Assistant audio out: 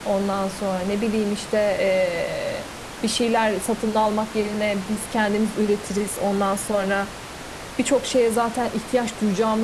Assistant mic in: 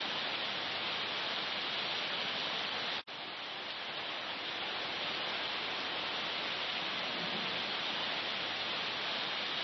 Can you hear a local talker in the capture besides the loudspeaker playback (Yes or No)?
No